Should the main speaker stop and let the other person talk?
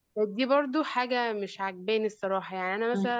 Yes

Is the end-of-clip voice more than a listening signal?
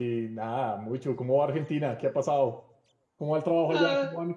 Yes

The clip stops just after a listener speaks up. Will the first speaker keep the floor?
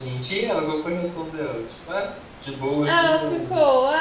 No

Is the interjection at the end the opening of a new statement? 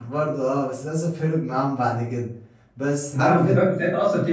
Yes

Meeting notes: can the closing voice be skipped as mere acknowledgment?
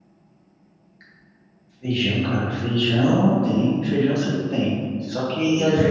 Yes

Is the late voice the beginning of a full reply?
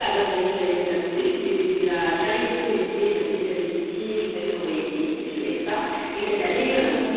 No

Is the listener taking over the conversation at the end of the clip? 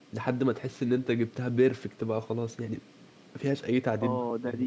Yes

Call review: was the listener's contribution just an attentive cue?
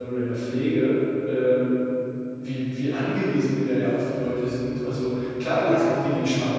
Yes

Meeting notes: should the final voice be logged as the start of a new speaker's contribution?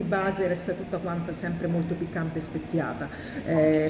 No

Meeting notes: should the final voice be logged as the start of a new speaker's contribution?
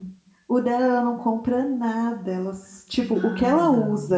No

